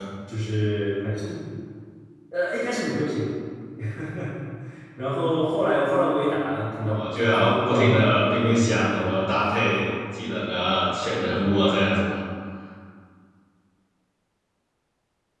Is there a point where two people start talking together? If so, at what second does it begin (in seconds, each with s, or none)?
6.8 s